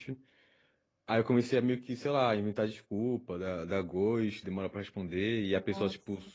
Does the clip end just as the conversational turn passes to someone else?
No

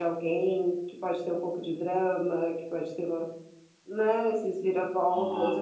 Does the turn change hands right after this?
No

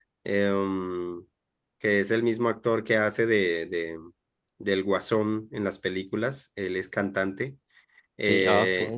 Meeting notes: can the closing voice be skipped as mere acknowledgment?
Yes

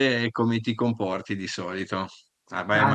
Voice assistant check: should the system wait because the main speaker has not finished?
Yes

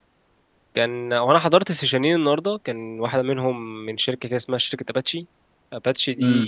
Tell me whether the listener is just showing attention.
No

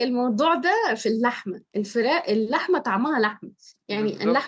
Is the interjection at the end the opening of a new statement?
No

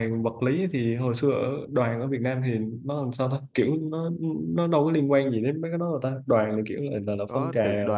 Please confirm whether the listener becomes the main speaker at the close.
Yes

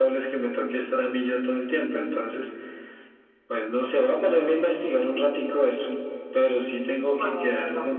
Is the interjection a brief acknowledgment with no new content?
Yes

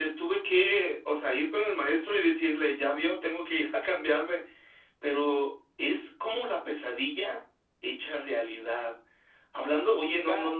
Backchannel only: Yes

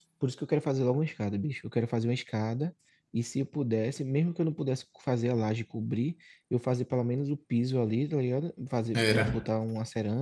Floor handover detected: No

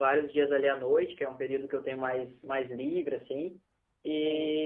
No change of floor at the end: Yes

